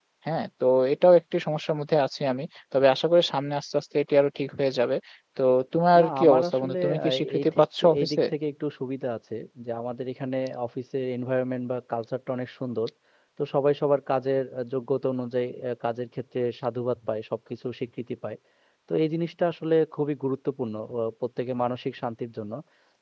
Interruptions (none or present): present